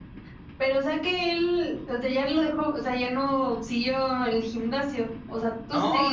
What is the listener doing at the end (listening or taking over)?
taking over